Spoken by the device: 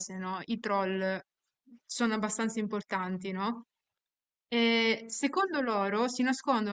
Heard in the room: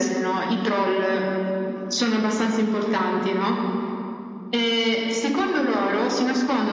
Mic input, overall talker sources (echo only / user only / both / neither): echo only